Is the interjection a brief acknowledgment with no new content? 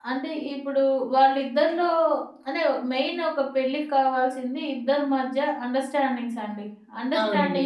Yes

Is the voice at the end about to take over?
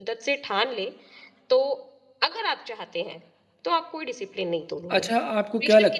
Yes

